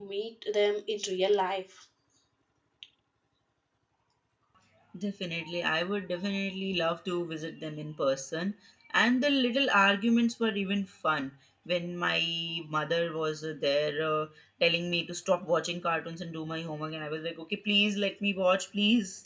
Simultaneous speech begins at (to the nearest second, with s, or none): none